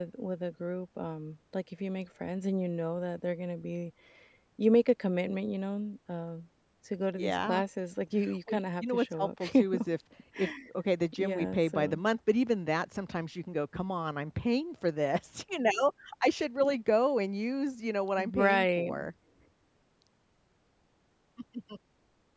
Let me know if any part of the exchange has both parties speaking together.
Yes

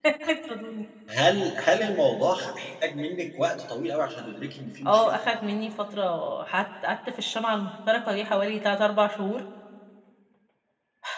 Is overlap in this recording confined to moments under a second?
Yes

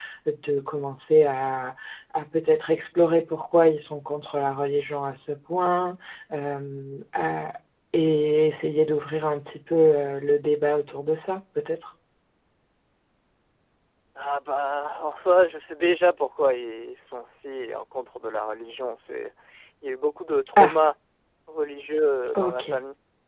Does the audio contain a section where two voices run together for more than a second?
No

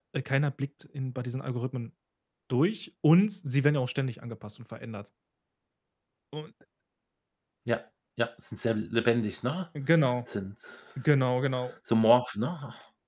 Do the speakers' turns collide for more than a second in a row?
No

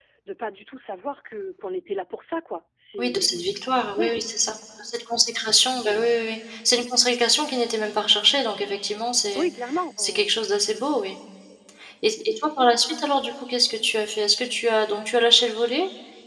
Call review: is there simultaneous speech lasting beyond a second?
No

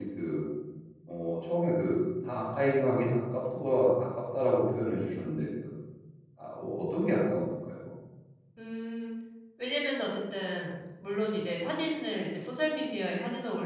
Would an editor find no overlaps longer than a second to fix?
Yes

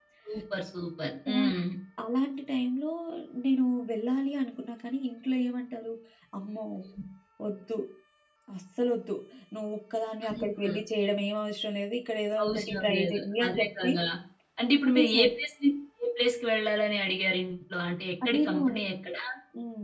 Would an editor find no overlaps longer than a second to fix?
No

